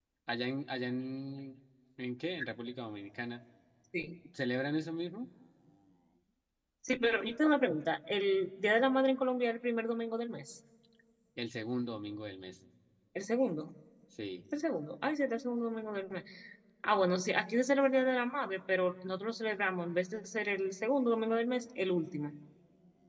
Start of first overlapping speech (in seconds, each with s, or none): none